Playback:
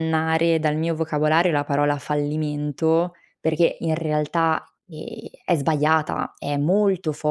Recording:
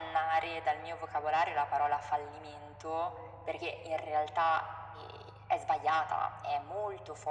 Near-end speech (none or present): none